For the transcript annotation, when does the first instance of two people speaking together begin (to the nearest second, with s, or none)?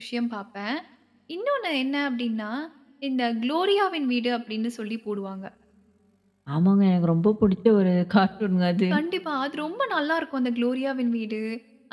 none